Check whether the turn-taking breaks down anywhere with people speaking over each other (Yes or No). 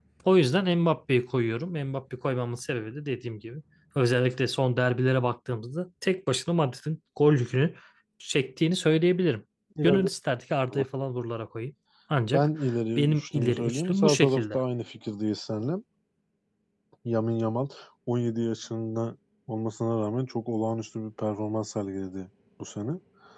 Yes